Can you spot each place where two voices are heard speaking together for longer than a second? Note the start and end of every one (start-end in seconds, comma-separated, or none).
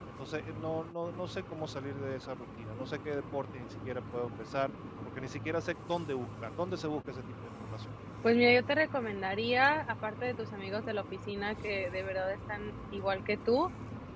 none